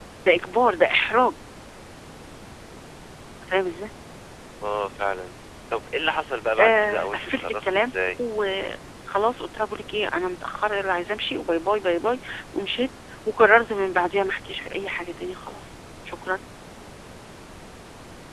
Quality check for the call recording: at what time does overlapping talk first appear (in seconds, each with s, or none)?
6.6 s